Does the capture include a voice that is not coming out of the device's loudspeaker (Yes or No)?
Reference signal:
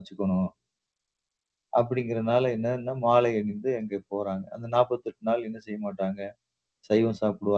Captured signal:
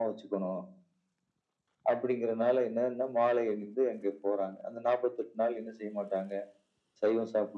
No